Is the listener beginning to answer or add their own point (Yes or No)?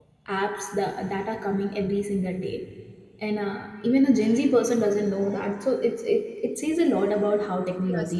Yes